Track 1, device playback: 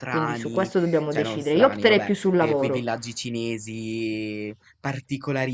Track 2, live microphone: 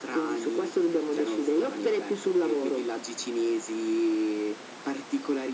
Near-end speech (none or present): none